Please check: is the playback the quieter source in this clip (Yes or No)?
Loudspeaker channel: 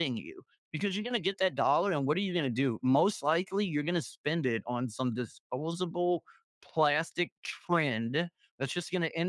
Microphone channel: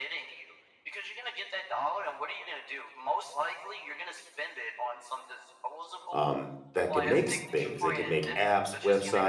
Yes